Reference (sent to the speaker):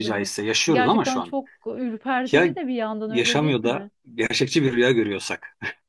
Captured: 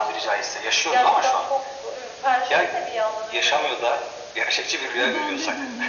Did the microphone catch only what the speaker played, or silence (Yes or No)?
No